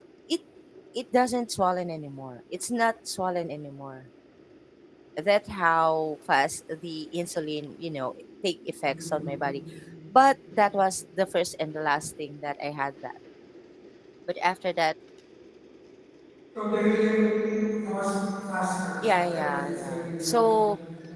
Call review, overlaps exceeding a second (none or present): present